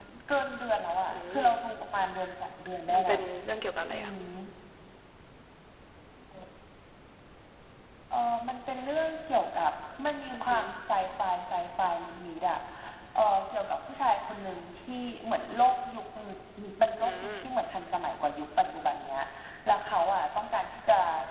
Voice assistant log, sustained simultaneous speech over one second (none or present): none